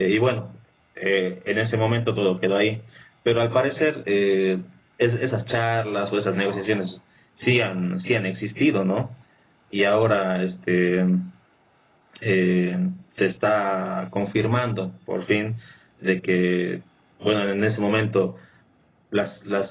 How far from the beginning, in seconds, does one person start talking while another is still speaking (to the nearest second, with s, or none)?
none